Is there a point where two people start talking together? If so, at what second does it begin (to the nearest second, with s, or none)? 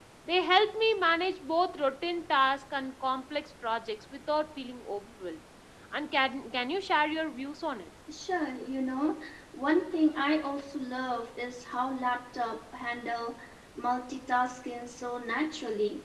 none